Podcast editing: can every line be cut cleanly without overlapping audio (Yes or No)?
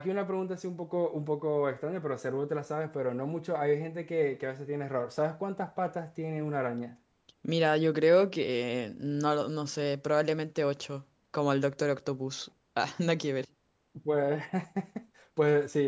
Yes